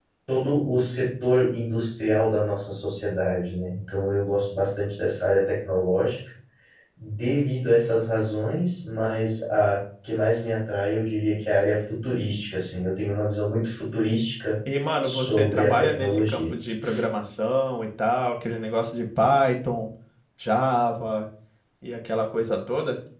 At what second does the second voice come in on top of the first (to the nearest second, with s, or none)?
15 s